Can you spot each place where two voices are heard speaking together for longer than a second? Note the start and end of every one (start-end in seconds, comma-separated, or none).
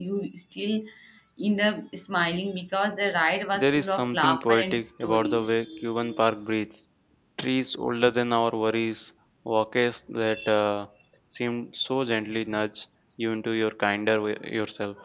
3.5-5.6